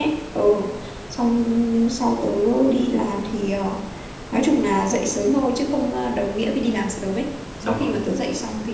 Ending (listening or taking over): listening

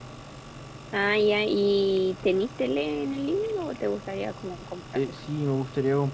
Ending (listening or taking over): taking over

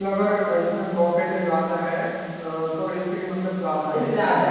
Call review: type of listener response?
taking over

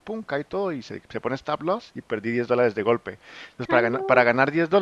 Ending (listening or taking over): listening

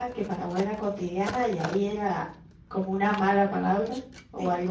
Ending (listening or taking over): taking over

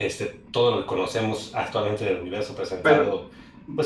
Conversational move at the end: listening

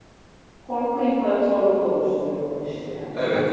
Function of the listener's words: taking over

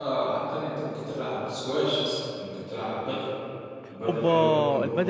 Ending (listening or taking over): taking over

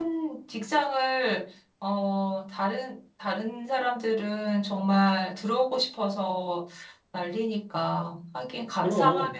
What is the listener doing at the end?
listening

